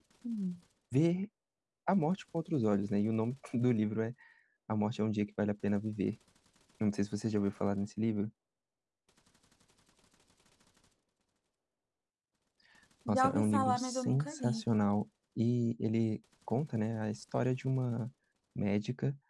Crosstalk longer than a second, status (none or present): present